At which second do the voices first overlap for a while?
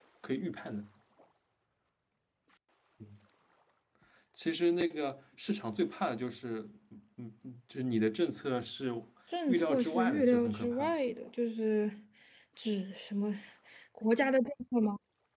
9.5 s

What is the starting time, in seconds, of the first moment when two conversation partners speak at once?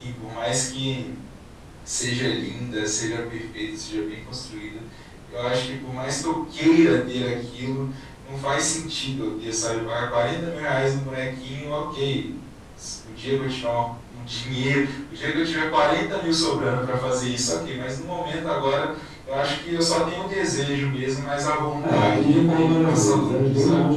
21.8 s

